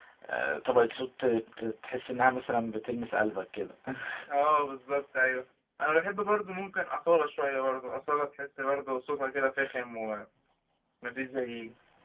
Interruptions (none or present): none